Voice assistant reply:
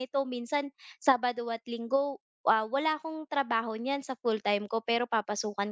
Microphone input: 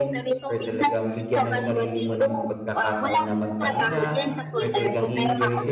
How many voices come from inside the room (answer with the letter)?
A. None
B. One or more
B